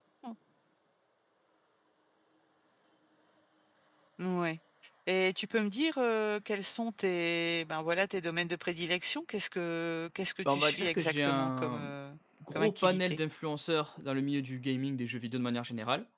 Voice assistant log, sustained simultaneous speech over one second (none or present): present